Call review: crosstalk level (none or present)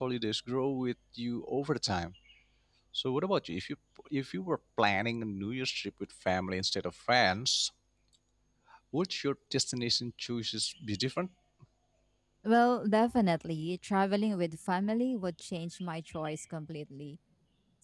none